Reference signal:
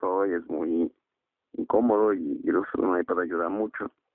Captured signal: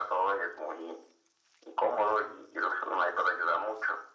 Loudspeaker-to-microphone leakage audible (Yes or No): Yes